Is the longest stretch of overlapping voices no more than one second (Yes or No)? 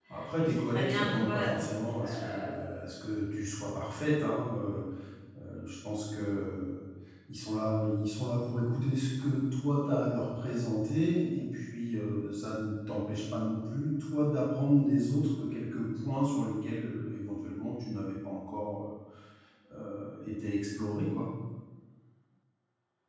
No